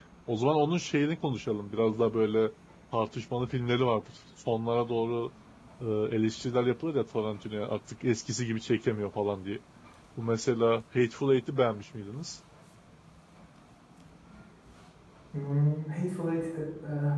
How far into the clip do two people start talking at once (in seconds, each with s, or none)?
none